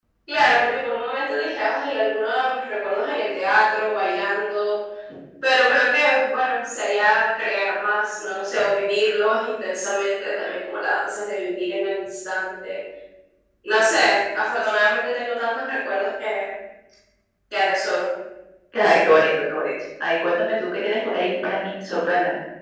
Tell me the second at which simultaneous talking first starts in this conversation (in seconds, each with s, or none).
none